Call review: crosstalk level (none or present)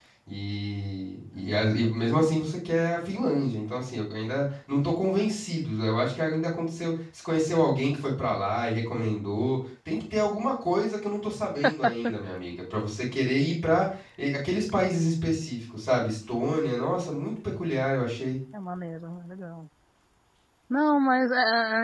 none